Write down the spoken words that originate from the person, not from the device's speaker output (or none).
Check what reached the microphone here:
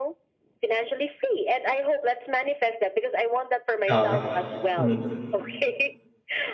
Okay. Mm.